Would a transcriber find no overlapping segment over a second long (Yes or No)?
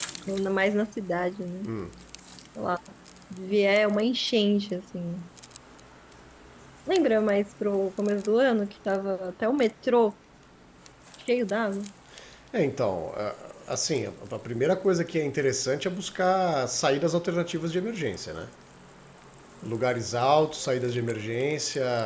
Yes